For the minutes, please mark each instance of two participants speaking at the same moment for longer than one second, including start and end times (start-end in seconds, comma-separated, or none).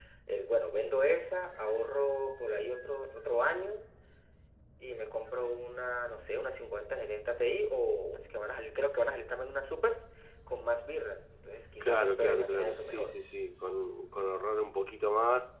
11.8-13.1